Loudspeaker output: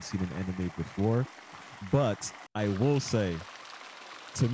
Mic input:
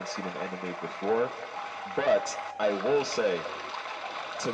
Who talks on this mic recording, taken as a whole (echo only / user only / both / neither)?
echo only